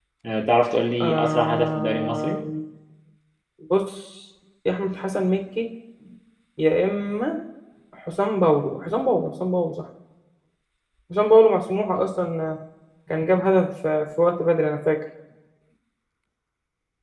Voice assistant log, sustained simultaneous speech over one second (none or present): present